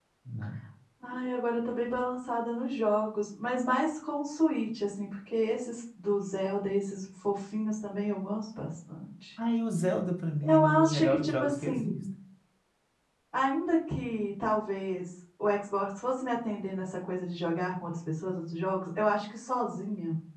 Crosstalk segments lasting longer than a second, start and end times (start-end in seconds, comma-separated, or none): 10.4-12.0